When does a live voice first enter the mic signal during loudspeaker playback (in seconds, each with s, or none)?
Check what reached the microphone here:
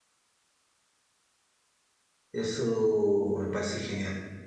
2.3 s